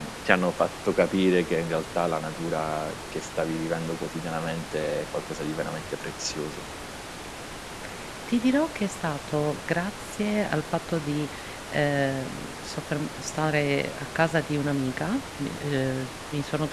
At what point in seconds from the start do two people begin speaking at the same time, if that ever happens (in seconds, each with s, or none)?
none